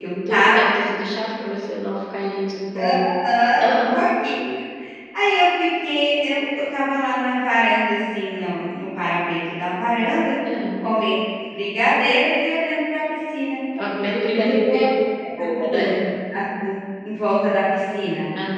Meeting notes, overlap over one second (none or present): none